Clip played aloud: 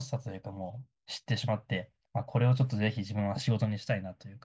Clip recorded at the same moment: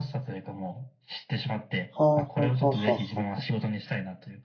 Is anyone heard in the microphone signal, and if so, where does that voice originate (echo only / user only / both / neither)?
both